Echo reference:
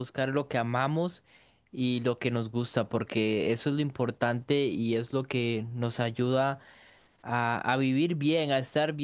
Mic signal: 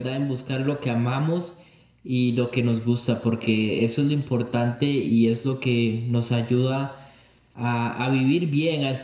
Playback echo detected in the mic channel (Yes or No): Yes